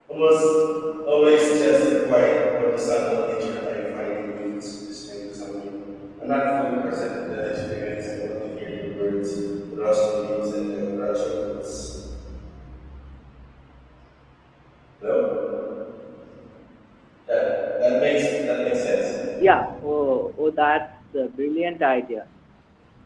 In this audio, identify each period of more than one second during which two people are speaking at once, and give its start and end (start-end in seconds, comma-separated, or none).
none